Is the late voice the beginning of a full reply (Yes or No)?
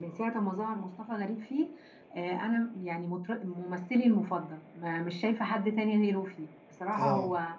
No